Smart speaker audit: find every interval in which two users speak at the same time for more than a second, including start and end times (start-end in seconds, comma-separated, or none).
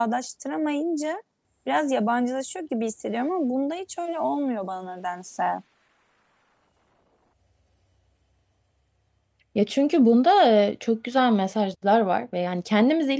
none